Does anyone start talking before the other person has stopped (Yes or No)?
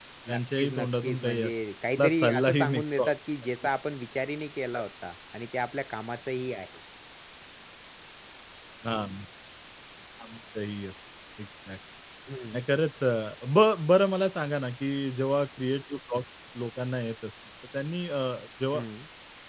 Yes